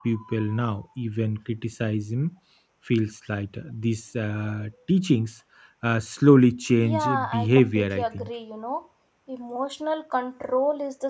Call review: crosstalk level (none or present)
present